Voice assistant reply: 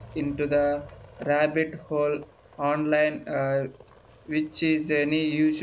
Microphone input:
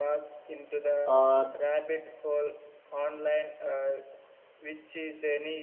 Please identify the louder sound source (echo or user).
user